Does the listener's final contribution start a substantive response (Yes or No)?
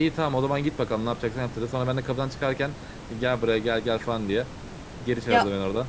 Yes